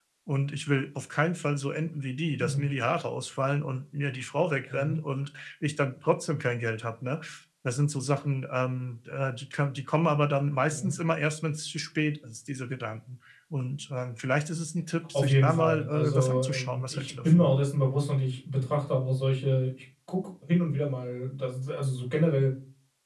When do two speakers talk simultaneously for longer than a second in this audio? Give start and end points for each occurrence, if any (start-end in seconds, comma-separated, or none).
15.1-17.5